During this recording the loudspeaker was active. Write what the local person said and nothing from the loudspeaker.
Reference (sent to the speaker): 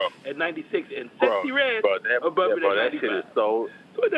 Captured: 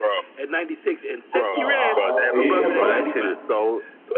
No, I, I. and You know what's funny?

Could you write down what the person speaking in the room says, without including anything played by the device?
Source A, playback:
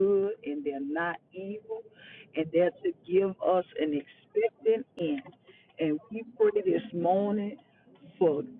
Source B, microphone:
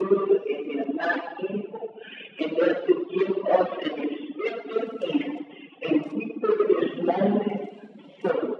none

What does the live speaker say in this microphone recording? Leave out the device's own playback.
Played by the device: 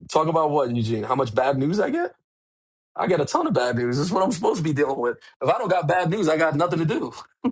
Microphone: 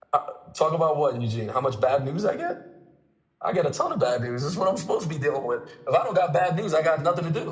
none

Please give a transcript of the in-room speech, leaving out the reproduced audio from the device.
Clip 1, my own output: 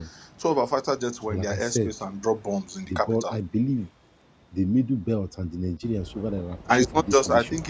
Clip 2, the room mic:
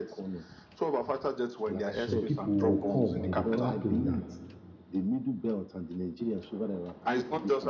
some people will come and be clapping that

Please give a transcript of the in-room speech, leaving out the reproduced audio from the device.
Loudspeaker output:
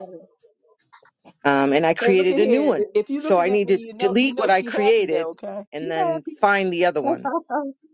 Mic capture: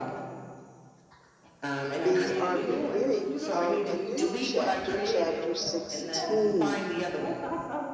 is our beginning of a new chapter, chapter 16.

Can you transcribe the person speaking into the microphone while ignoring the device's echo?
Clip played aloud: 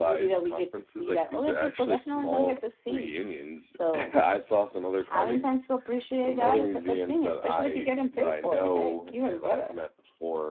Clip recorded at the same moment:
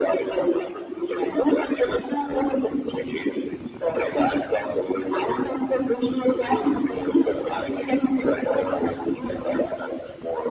none

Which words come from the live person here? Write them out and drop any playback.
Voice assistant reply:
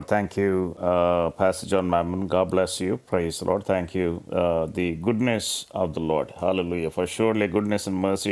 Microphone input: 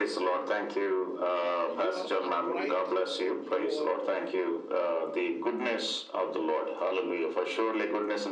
uh, you are upright and you are

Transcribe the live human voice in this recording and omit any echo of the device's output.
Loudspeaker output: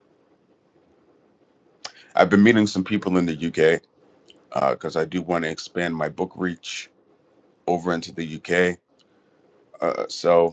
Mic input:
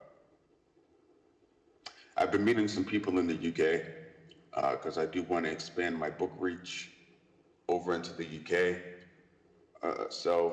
none

